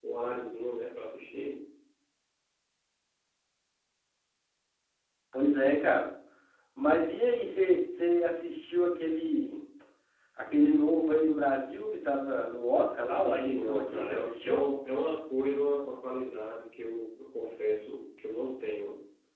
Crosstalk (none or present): present